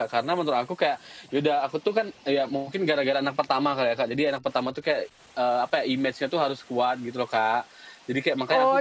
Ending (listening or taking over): taking over